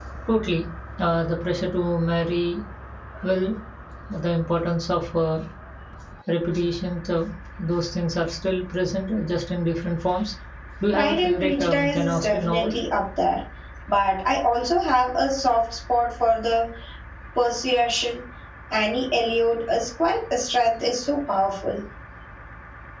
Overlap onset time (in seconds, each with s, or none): 10.9 s